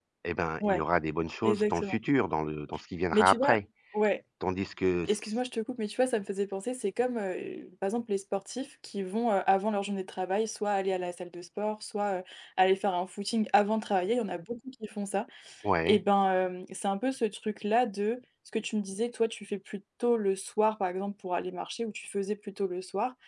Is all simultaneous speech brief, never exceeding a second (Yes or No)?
Yes